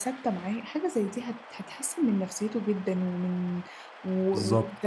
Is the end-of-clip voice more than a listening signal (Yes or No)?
No